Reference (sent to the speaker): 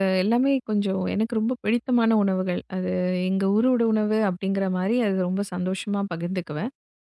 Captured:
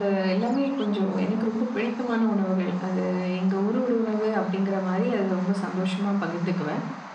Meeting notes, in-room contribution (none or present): none